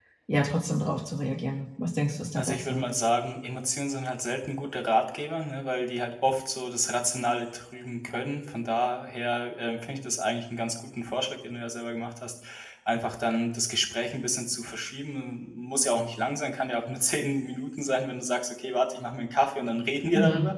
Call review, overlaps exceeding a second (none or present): none